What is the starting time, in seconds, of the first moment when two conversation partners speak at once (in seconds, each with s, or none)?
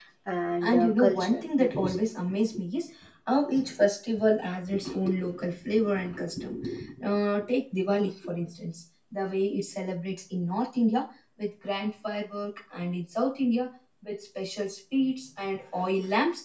0.6 s